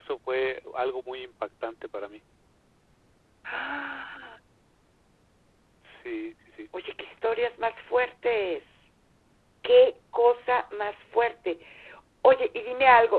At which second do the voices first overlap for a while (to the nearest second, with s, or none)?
none